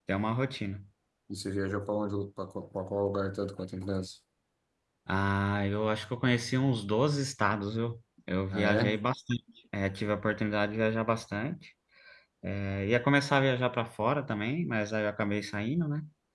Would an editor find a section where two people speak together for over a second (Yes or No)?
No